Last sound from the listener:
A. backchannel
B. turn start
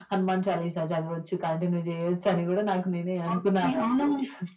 B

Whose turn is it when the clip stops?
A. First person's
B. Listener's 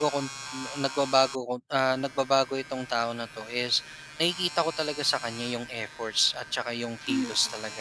B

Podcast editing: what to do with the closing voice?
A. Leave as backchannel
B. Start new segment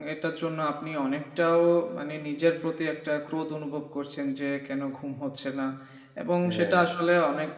A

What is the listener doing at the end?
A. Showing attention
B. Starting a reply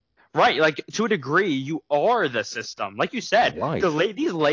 A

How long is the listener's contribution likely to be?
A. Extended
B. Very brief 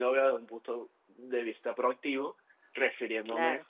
B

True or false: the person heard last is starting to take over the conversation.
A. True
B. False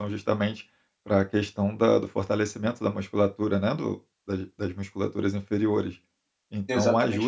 B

